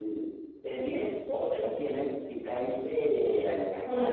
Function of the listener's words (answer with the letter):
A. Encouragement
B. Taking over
B